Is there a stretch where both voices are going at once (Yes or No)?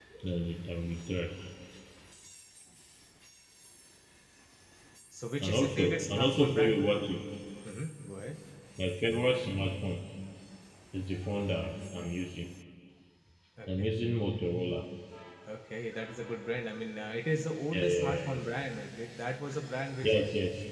Yes